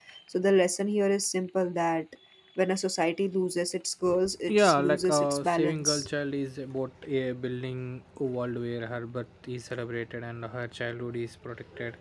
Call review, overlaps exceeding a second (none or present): present